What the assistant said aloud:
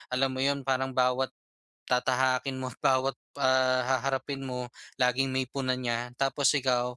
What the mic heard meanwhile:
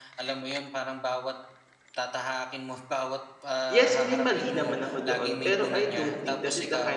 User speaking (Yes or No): Yes